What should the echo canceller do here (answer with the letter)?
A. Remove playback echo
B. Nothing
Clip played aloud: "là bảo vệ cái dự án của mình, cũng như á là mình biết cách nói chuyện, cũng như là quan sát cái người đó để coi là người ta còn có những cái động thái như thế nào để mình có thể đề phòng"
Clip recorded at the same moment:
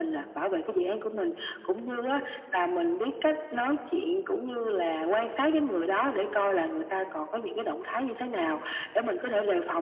A